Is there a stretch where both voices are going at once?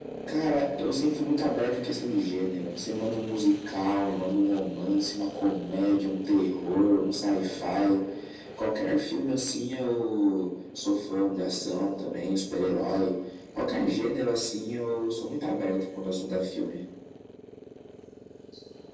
No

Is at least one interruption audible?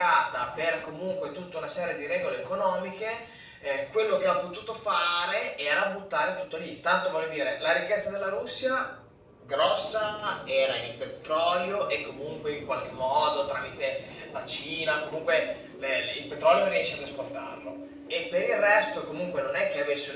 No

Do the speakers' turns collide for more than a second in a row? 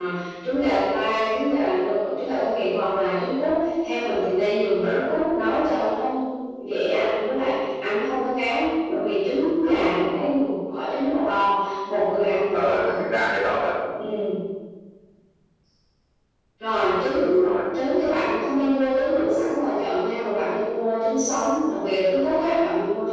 No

